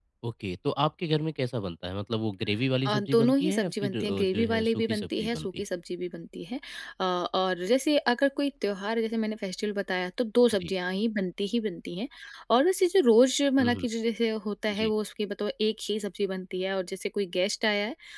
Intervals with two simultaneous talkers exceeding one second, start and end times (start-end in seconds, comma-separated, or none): 2.9-5.6